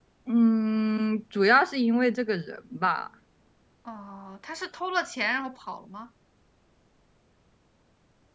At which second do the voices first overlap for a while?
none

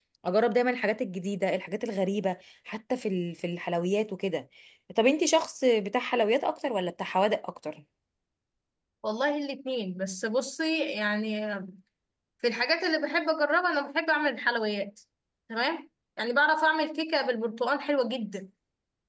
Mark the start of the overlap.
none

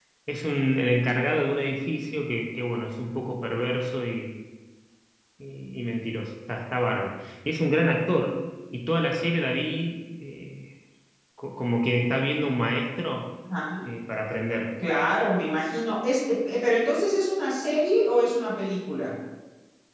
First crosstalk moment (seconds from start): none

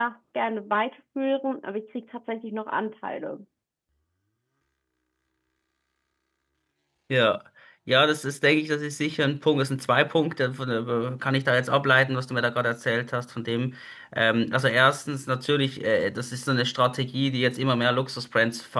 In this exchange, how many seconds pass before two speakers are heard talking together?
none

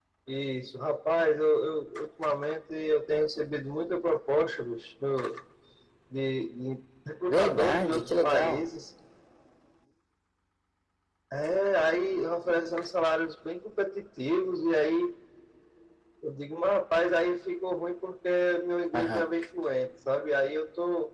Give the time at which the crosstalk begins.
7 s

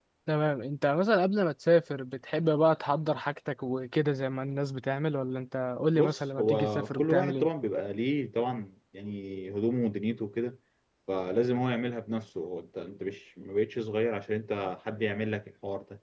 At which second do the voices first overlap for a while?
6 s

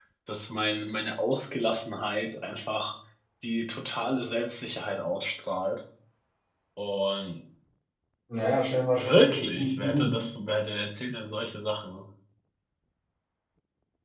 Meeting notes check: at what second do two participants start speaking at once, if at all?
9 s

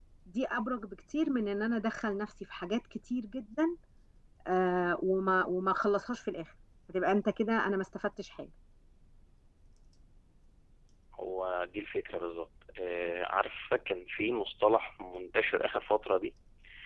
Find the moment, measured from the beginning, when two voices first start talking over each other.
none

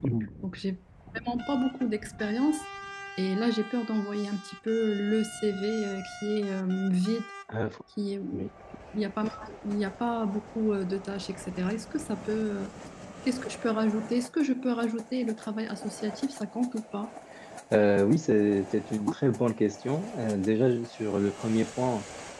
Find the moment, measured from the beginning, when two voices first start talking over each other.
none

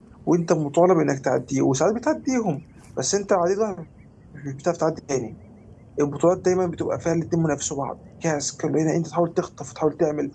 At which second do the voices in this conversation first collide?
none

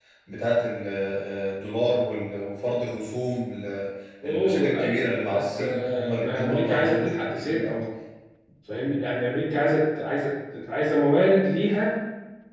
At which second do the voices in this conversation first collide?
4 s

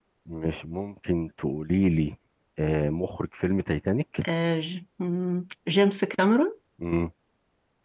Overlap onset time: none

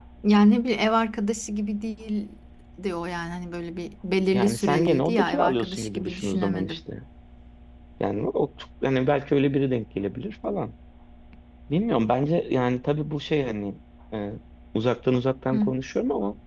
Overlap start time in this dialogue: 4 s

